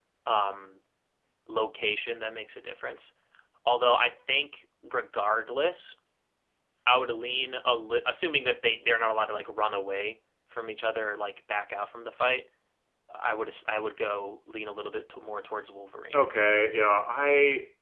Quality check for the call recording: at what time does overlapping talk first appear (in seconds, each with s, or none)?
none